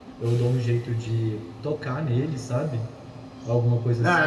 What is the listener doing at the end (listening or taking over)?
taking over